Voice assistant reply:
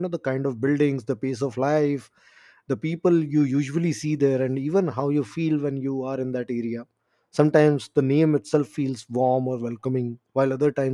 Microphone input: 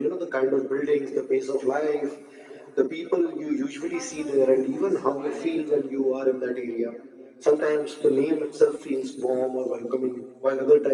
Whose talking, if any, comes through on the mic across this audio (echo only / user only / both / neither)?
both